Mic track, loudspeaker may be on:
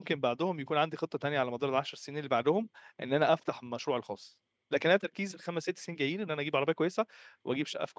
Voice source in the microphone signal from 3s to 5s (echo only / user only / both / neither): user only